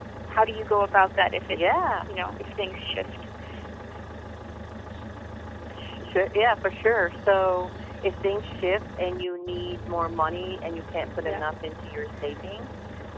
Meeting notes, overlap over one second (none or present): none